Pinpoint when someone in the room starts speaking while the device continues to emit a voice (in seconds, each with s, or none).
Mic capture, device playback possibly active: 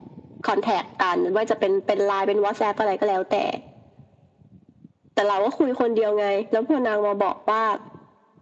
none